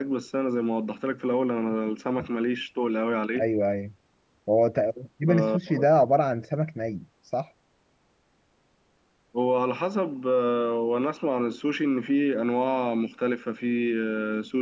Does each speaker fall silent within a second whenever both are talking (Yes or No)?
Yes